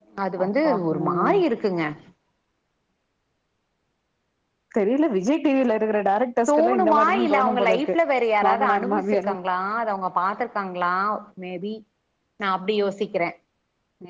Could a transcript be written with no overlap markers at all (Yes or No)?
No